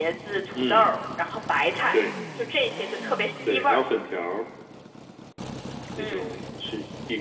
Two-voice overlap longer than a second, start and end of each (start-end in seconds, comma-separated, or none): none